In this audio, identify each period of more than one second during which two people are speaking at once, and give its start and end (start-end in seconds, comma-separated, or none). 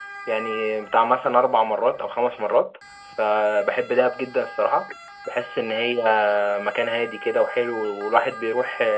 none